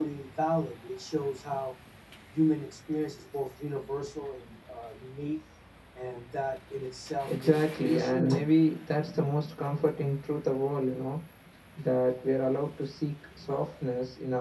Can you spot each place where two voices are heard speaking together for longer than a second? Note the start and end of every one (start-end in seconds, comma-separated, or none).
7.3-8.5